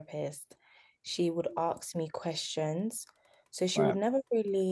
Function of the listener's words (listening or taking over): listening